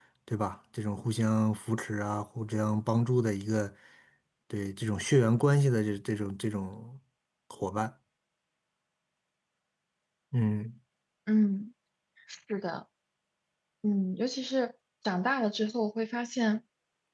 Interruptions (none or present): none